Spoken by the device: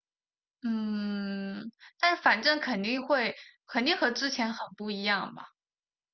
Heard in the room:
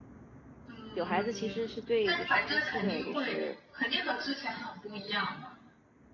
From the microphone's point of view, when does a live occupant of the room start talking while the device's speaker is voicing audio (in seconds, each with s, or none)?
0.9 s